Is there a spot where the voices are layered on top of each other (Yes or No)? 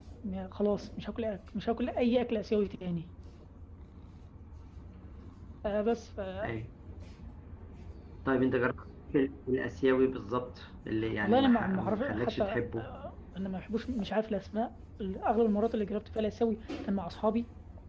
Yes